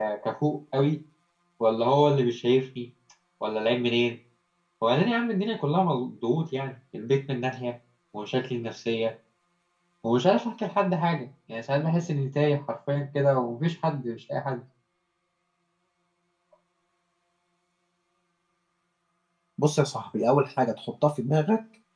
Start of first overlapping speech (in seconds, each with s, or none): none